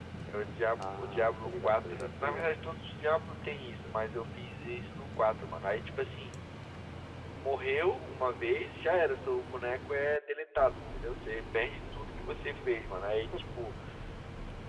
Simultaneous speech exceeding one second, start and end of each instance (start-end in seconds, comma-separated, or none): 0.8-2.5